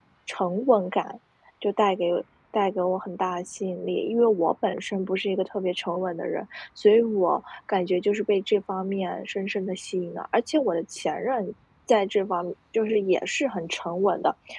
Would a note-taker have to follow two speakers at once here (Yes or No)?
No